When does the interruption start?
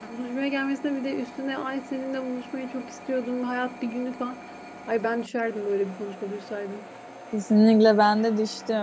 none

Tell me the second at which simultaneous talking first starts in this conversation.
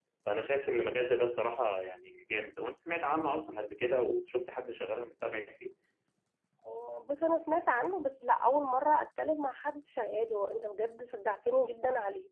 none

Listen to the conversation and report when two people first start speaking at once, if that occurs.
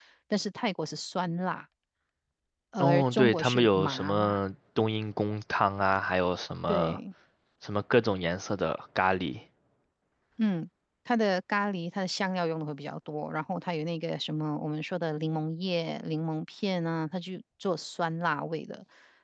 2.8 s

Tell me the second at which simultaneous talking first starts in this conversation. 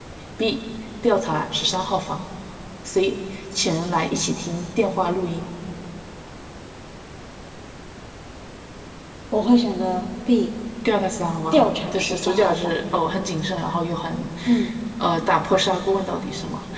11.5 s

